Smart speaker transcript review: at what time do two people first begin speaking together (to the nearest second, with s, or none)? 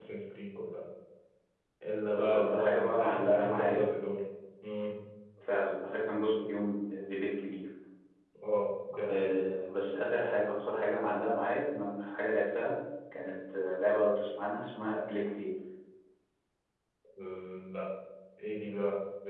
2 s